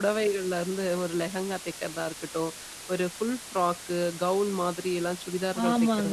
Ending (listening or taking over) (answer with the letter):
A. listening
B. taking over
B